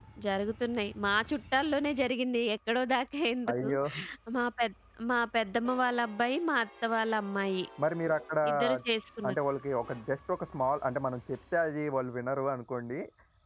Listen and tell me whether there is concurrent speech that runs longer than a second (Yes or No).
No